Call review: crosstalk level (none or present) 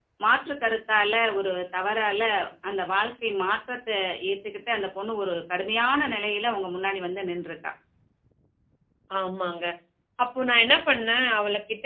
none